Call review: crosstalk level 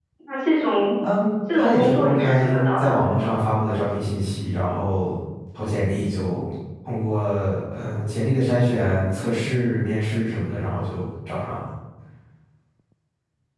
present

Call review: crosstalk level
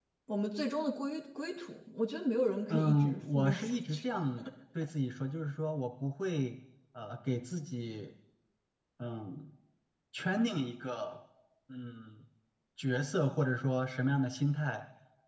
present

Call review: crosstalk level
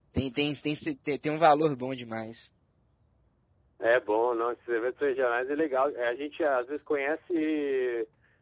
none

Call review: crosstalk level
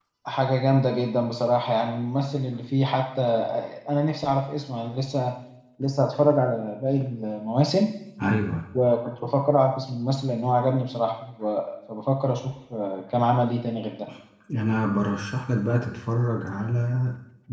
none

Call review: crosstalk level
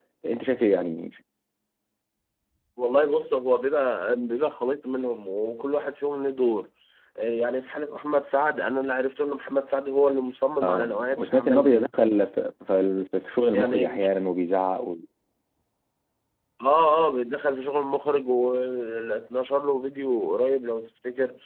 present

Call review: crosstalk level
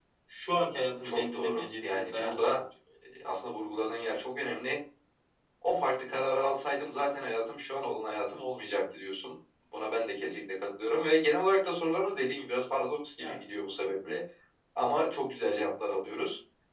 present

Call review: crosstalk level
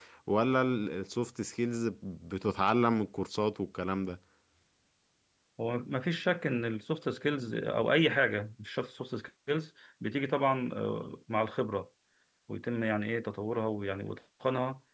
none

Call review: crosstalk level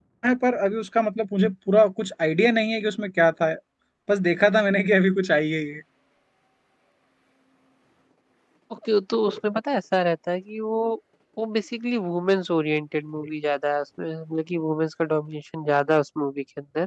none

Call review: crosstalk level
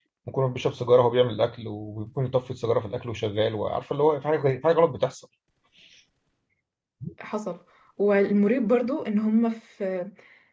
none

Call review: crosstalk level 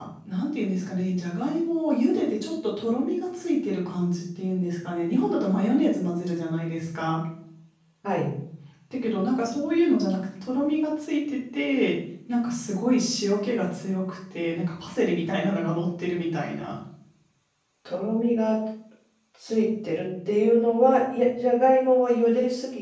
none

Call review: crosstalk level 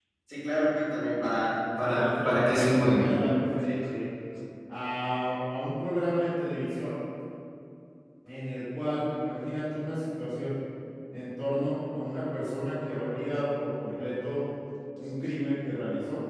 present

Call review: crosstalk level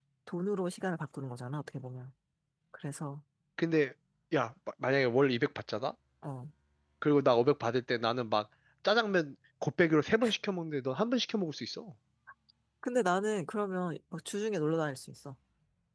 none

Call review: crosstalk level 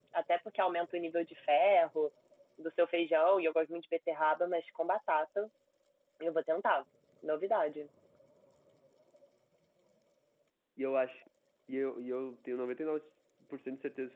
none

